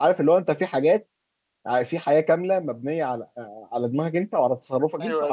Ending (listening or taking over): taking over